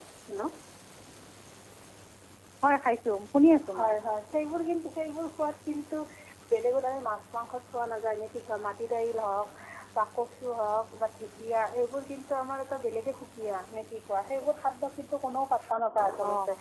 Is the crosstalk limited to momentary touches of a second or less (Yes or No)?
Yes